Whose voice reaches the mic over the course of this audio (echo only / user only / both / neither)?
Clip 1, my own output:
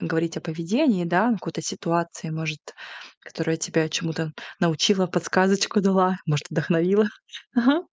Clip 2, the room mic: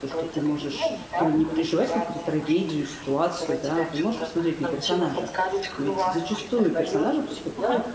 both